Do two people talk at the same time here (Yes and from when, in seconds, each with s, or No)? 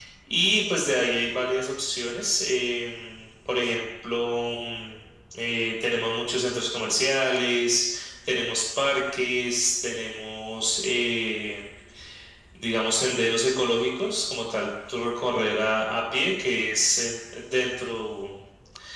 No